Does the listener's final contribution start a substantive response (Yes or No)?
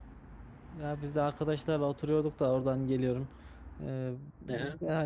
No